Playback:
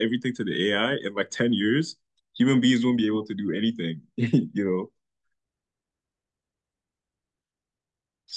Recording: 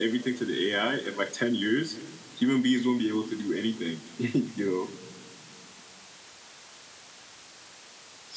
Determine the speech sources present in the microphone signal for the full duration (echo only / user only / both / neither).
echo only